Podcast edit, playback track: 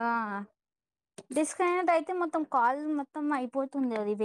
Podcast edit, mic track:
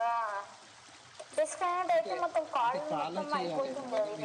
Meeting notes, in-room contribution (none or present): present